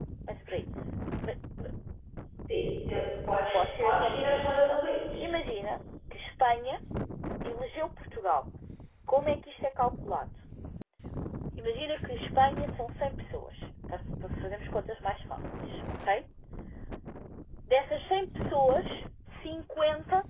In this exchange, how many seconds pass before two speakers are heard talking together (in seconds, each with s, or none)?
3.5 s